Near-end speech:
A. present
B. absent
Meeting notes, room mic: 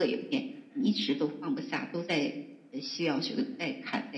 B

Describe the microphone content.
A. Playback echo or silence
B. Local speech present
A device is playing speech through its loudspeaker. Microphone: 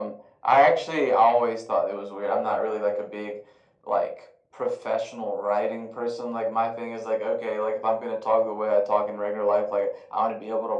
A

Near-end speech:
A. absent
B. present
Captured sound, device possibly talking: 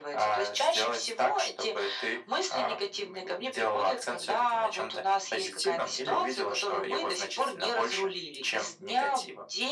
A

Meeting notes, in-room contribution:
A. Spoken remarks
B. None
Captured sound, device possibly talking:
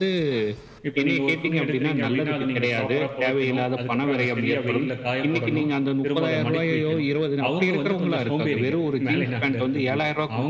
A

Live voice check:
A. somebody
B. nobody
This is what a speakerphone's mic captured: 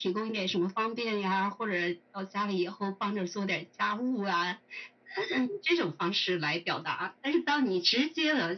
B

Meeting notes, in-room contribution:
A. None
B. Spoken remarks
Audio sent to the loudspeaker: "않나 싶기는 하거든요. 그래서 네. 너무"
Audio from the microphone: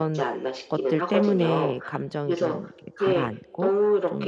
B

